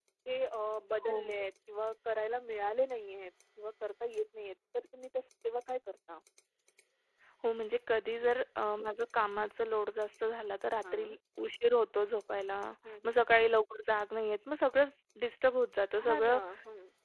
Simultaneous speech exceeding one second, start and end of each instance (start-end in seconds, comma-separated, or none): none